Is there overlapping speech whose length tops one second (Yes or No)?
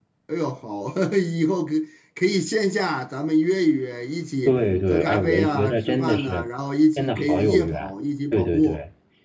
Yes